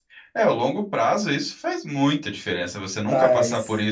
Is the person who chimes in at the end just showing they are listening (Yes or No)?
Yes